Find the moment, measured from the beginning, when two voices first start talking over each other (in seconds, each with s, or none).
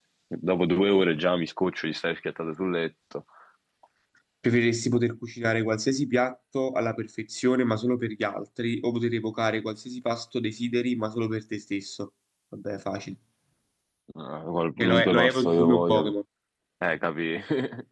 14.8 s